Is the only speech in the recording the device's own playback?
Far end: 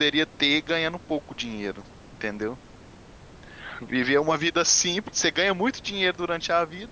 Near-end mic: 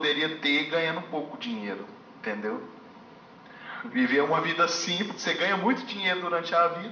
Yes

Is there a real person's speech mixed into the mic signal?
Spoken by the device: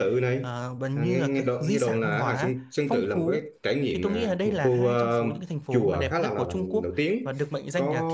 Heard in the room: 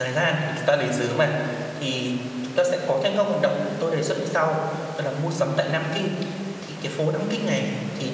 Yes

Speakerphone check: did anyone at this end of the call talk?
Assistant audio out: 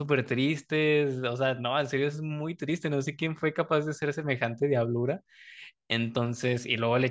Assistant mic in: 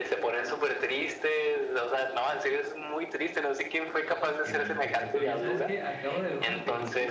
Yes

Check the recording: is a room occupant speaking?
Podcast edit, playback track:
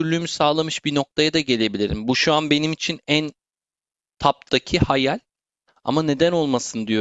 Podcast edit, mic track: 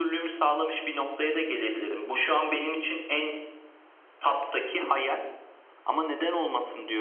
No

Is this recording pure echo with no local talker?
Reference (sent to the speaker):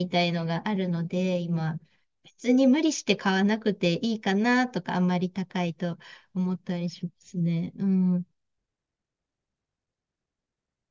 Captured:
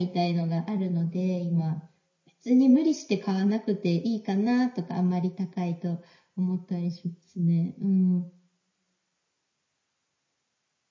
Yes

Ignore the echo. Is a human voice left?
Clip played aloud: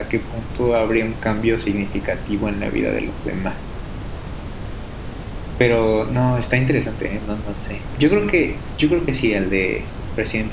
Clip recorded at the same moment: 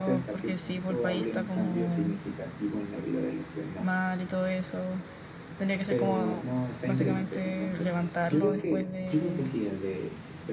Yes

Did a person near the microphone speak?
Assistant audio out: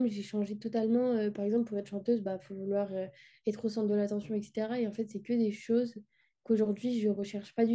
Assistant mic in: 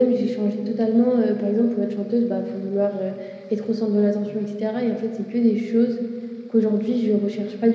No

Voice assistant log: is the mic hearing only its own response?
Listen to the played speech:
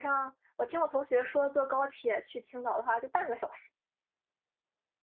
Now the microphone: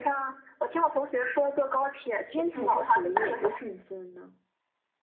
No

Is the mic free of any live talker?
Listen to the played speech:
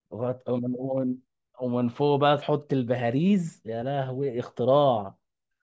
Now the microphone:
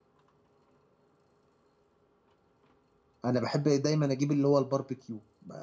No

